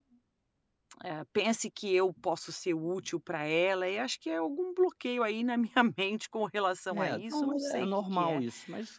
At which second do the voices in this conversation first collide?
7 s

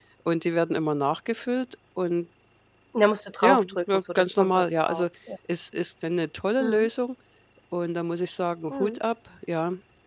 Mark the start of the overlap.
3 s

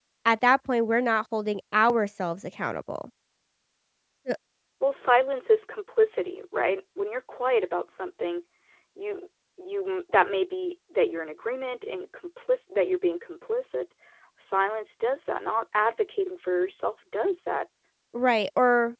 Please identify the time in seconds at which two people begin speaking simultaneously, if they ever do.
none

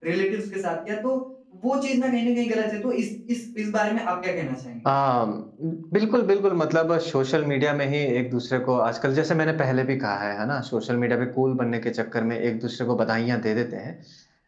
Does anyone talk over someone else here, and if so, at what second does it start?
none

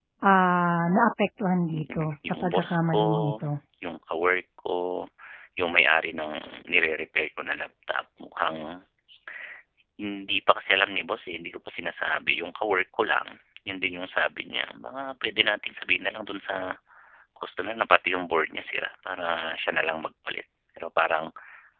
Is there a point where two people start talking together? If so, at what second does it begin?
2 s

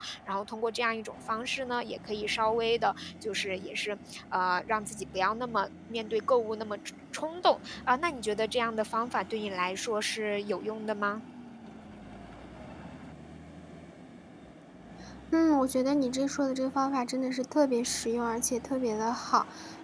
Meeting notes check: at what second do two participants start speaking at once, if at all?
none

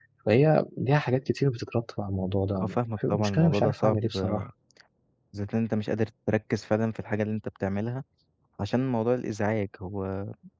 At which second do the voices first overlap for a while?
3 s

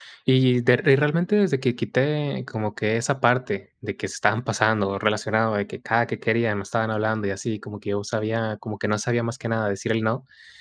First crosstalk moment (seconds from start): none

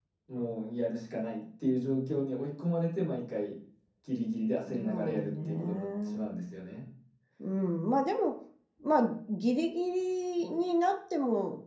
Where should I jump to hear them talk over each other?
5 s

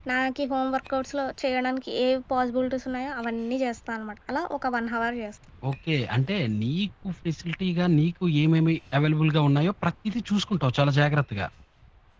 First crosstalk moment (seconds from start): none

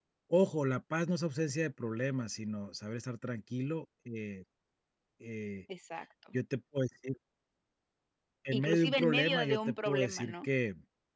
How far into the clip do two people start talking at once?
9 s

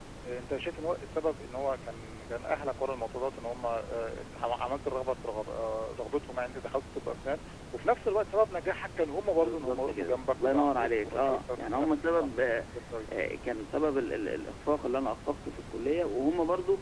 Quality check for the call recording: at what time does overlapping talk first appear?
9 s

